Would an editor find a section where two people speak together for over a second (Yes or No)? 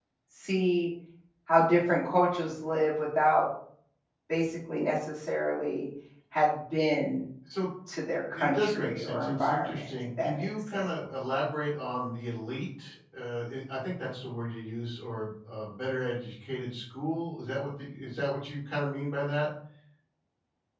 Yes